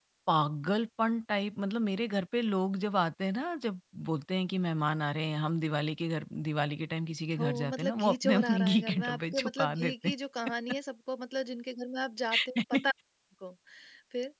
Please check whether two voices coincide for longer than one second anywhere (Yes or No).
Yes